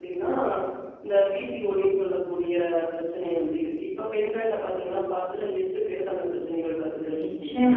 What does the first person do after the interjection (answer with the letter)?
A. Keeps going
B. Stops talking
B